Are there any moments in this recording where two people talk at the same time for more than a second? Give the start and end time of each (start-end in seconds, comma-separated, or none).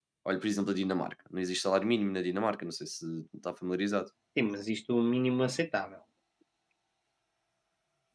none